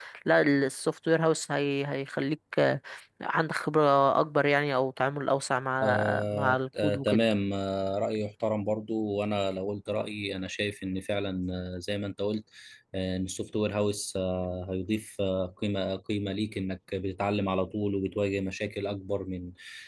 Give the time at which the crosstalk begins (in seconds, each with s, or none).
5.8 s